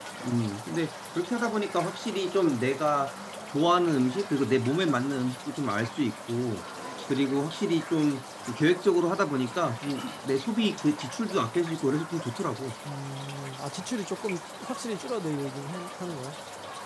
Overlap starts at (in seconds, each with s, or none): none